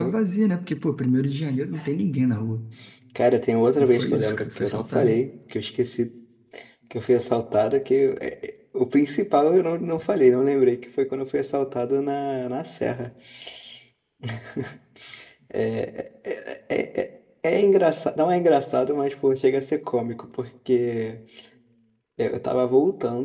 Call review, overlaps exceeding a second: present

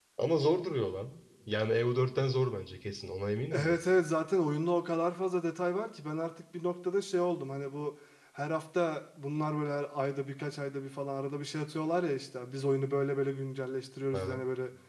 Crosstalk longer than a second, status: none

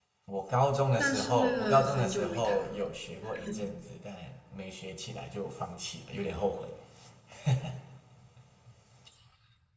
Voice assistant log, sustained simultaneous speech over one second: present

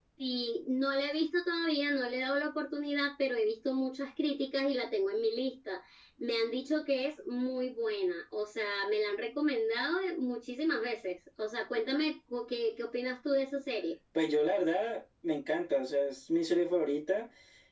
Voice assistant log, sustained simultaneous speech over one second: none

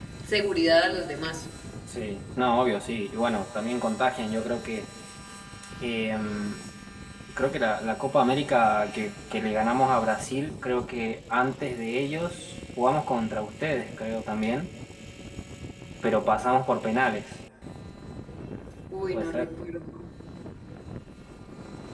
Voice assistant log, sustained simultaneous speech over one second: none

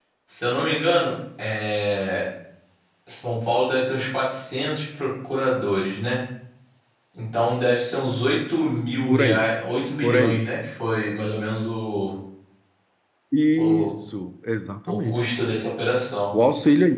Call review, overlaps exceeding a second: none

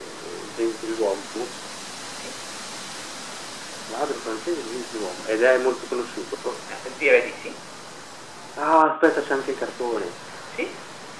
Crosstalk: none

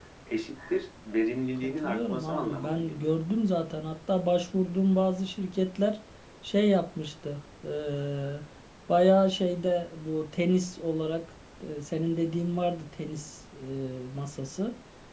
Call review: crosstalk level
present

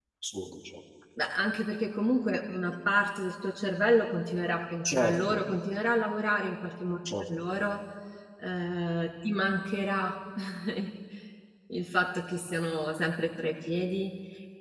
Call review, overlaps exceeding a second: none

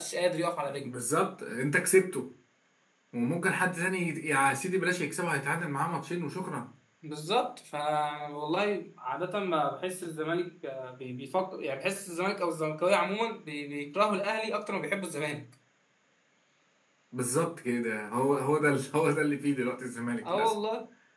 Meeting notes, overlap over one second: none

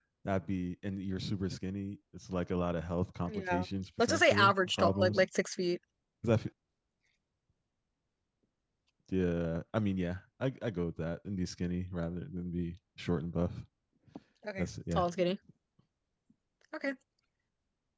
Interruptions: present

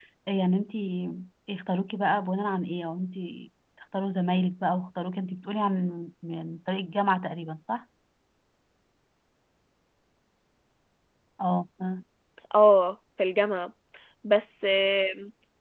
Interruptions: none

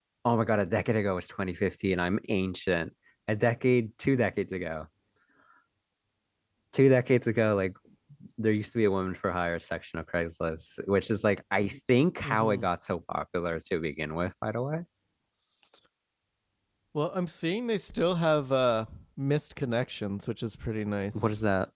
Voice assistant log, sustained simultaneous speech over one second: none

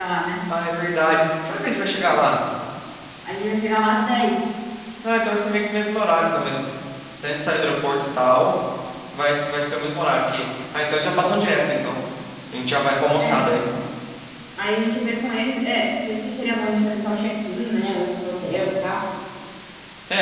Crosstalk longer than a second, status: none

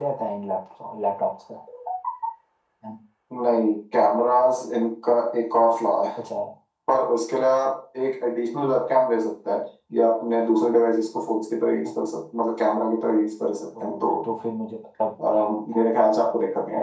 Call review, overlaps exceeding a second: none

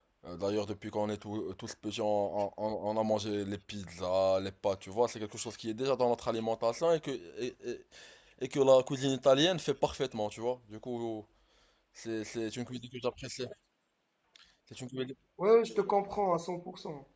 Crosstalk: none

